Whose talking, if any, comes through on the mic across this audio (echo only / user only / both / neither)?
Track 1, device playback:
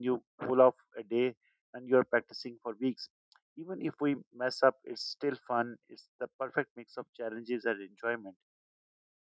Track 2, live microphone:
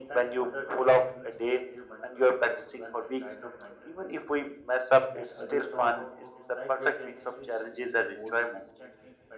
both